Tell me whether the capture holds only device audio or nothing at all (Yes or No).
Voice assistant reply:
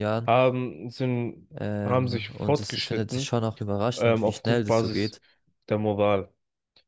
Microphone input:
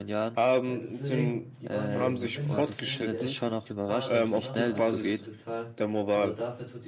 No